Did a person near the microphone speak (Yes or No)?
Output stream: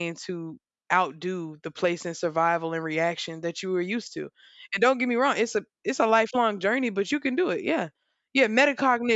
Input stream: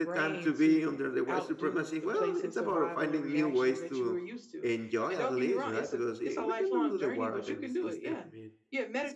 Yes